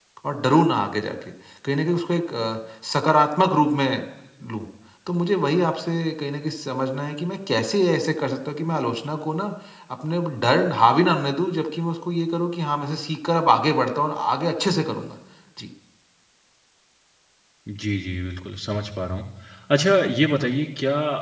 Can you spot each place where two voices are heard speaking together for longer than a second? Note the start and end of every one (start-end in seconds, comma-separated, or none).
none